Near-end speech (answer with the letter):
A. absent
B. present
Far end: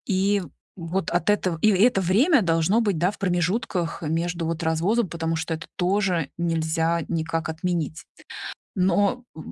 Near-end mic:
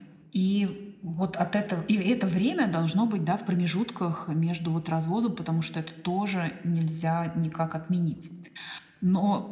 A